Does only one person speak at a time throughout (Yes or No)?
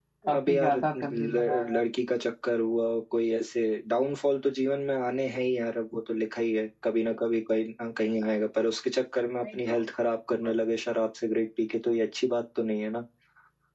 No